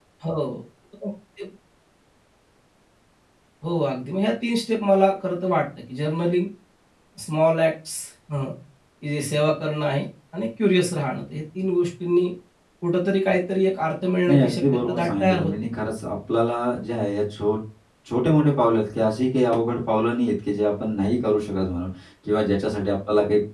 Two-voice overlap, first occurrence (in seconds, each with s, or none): 14.3 s